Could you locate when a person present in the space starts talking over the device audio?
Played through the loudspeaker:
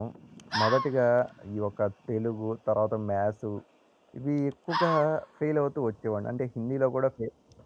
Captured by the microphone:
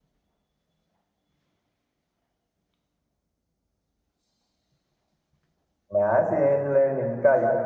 6 s

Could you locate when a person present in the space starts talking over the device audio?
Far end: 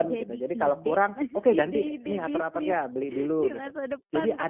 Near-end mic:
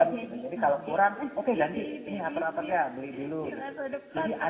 none

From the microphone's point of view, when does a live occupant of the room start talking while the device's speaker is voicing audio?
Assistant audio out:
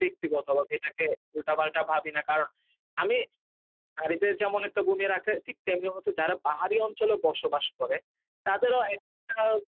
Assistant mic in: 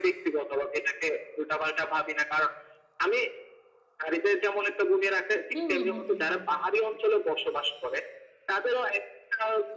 6 s

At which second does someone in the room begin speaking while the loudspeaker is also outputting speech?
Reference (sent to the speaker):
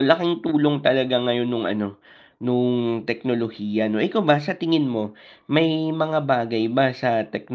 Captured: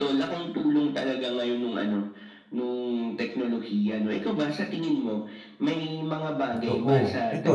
7 s

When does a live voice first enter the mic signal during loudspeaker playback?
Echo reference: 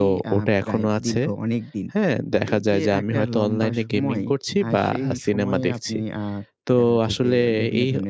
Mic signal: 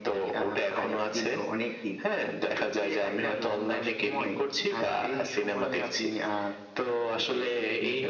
none

